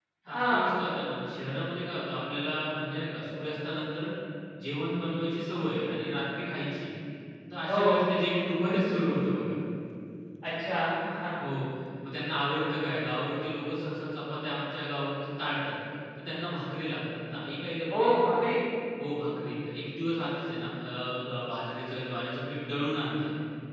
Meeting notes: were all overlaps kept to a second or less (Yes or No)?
Yes